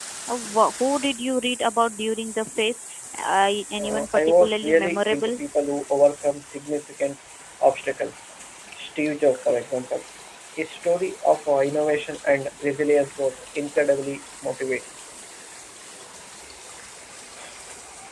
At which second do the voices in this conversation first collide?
4 s

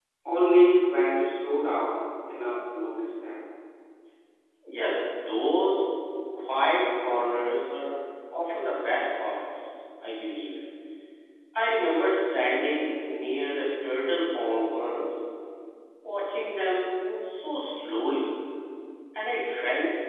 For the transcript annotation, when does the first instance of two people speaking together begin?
none

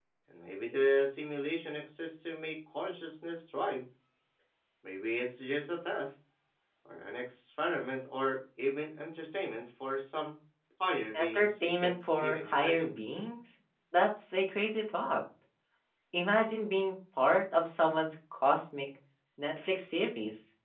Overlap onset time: 11 s

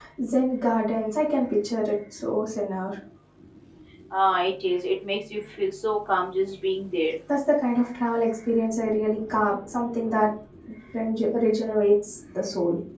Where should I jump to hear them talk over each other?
none

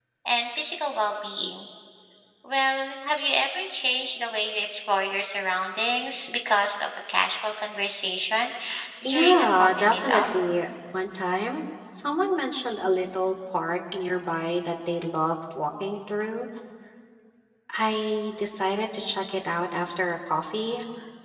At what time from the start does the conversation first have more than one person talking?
9 s

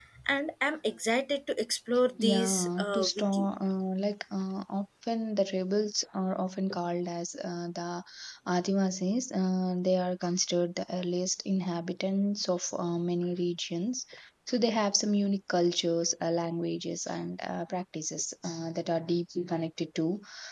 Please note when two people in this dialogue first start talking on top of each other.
2 s

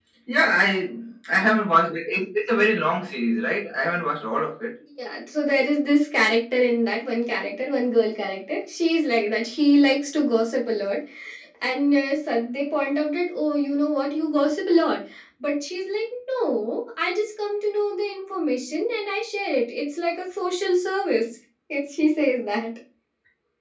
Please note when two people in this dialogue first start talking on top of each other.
none

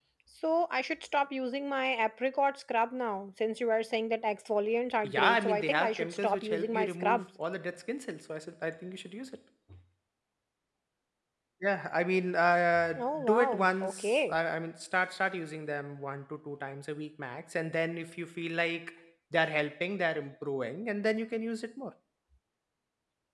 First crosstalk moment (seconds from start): 5 s

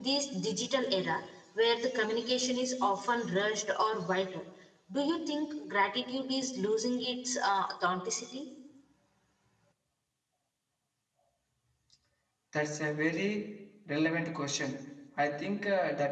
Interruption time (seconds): none

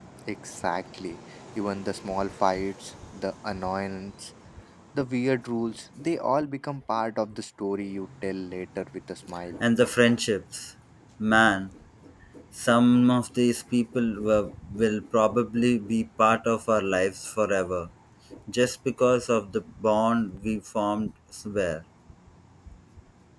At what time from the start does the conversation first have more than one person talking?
none

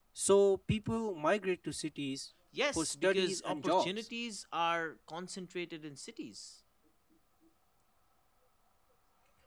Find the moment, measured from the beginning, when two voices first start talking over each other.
3 s

